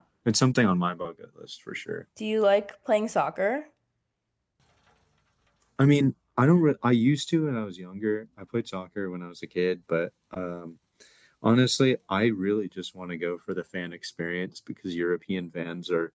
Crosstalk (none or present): none